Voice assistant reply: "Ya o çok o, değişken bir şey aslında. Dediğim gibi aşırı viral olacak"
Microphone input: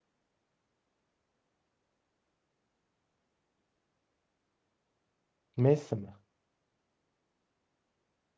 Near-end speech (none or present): present